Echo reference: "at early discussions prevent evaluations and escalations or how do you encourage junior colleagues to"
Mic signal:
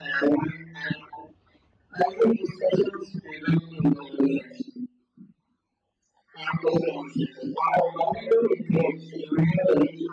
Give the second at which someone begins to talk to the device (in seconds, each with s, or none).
none